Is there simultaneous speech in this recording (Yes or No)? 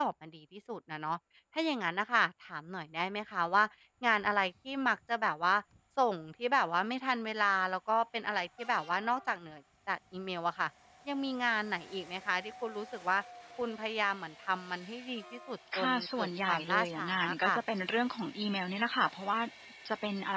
Yes